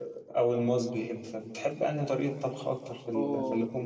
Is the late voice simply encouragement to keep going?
Yes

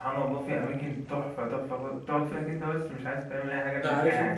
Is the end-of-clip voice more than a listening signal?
Yes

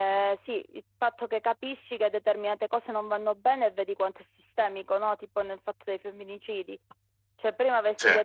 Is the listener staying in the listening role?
Yes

